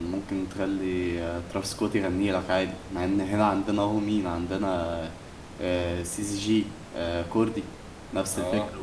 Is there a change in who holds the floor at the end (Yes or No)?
Yes